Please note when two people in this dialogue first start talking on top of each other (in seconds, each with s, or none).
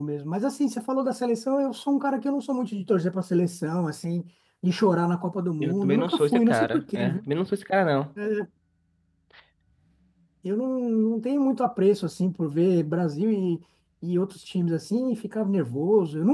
5.6 s